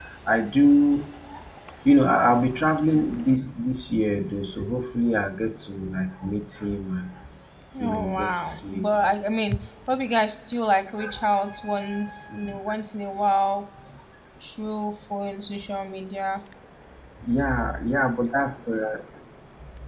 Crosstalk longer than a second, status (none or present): present